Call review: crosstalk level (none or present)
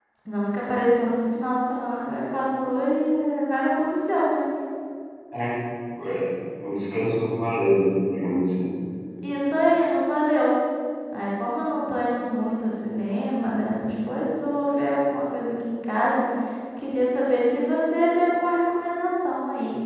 none